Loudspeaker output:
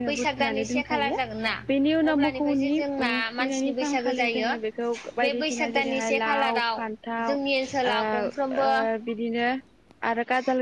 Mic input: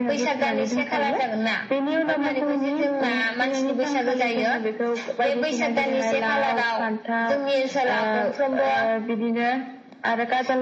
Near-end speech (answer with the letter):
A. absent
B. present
A